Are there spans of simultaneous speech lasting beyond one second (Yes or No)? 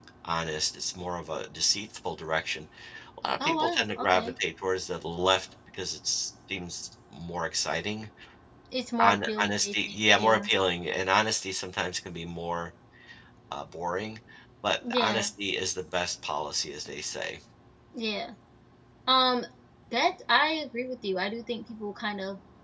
Yes